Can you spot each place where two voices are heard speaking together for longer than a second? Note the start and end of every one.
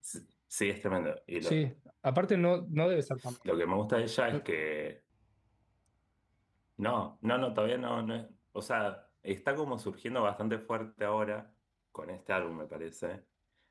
none

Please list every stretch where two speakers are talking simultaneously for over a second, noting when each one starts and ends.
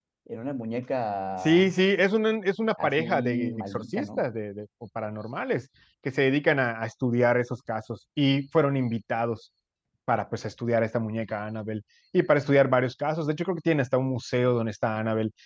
2.8-4.2

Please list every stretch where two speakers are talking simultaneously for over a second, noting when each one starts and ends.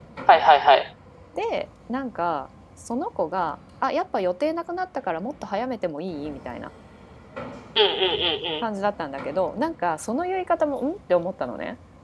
none

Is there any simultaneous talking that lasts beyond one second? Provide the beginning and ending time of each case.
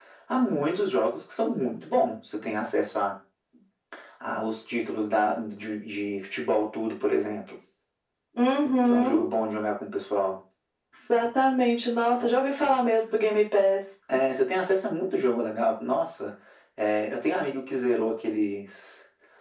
none

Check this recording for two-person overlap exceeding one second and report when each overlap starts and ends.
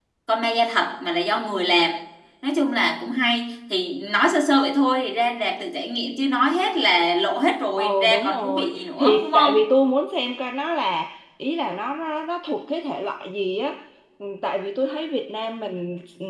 7.8-9.7

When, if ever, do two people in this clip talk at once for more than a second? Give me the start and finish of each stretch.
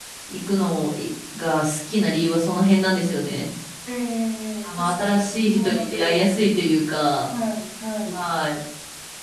4.6-6.2

